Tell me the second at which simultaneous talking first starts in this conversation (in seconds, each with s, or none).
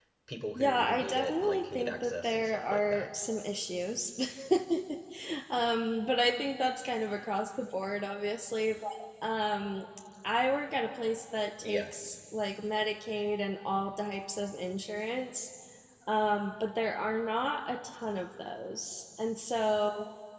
0.6 s